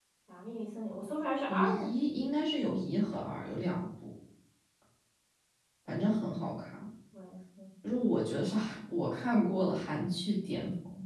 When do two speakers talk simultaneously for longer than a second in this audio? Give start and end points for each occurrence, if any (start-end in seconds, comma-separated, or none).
none